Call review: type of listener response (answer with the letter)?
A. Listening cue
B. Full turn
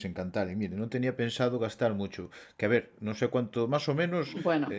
A